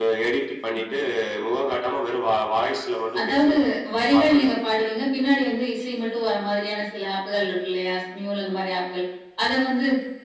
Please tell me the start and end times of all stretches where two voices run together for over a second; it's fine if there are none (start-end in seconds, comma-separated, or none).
none